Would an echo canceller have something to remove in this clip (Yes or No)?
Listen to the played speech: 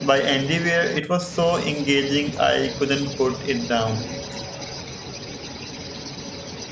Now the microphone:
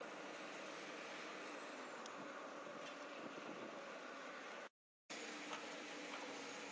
No